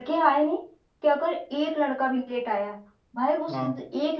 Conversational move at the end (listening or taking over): listening